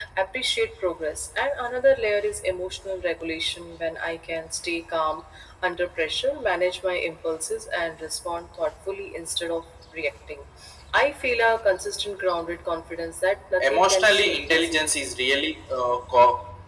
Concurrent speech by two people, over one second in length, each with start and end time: 13.6-15.0

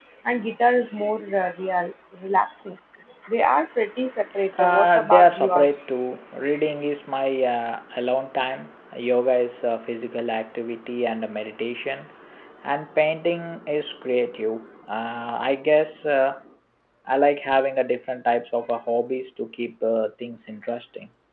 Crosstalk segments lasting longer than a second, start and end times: 4.6-5.8

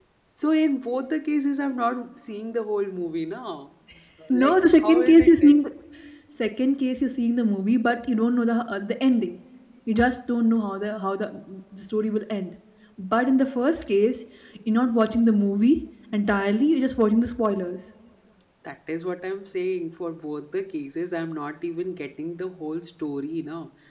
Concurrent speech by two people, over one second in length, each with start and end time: 4.3-5.5

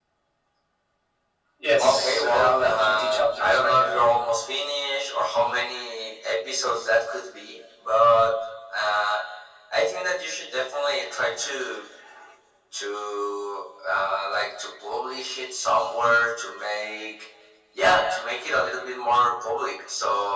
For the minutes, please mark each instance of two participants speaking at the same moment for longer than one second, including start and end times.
1.8-4.1

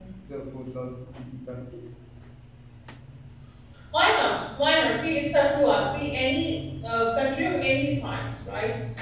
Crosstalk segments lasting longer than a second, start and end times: none

